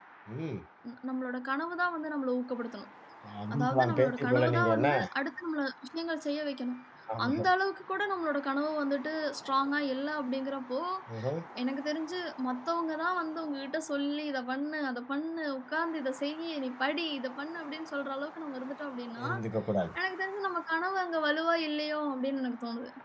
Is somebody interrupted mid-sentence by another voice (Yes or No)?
Yes